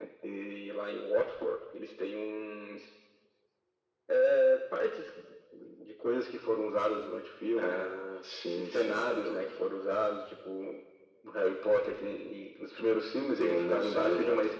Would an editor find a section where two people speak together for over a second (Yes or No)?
Yes